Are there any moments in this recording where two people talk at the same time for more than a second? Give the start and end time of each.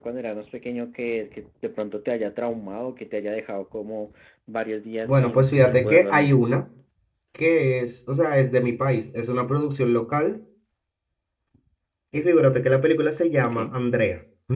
5.0-6.3

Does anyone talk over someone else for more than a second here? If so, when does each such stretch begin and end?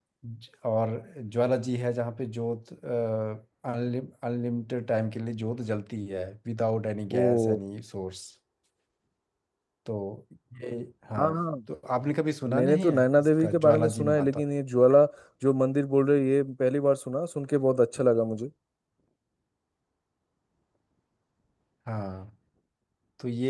12.6-14.4

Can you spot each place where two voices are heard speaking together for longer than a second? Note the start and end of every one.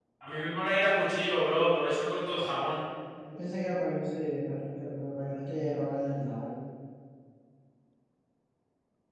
none

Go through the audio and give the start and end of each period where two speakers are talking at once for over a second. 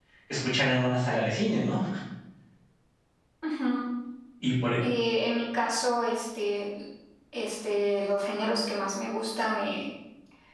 none

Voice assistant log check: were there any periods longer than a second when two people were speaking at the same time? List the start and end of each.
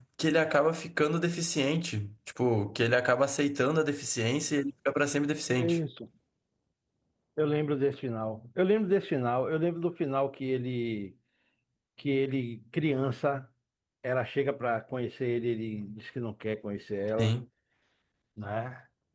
none

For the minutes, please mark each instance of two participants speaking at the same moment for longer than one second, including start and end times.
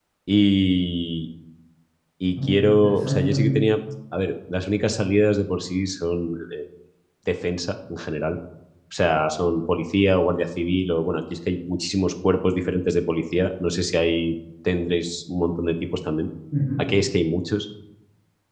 2.4-3.6

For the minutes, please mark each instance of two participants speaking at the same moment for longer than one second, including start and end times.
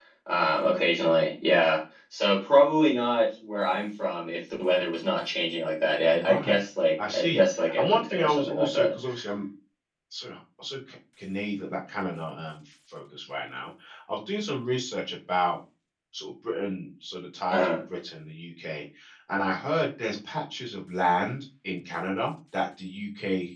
7.1-8.8

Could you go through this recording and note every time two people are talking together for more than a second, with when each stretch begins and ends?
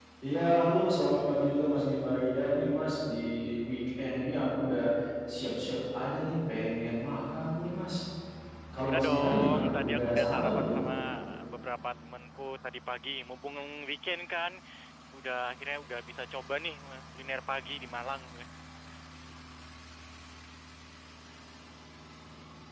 8.9-10.8

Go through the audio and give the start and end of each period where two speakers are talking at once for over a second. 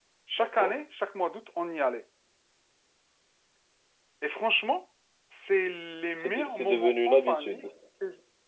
6.2-7.7

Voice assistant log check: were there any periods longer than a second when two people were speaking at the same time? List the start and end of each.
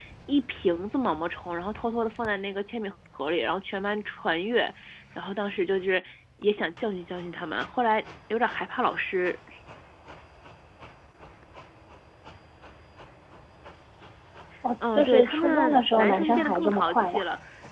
15.0-17.2

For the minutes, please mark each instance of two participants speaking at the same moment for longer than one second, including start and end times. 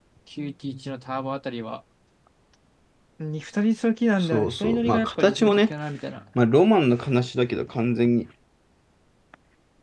4.2-5.7

